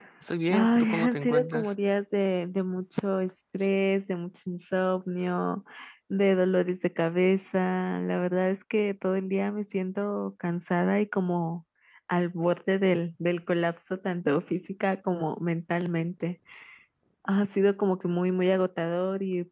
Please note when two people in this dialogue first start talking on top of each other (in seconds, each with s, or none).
0.5 s